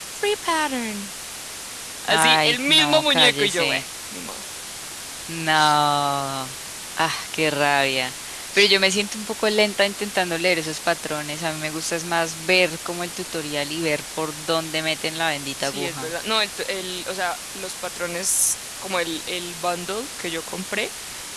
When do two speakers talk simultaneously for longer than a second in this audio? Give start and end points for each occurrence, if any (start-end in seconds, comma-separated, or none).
2.1-3.8